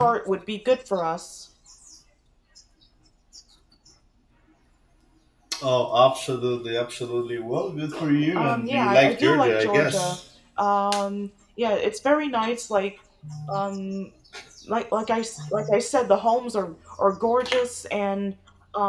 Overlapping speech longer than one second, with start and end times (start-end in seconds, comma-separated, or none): 8.3-10.2